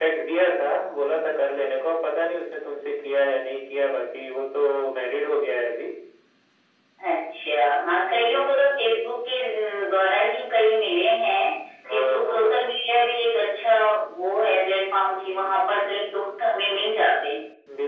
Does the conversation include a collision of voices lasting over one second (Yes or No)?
Yes